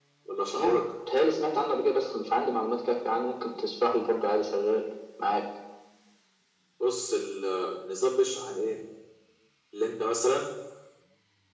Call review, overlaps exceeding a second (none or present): none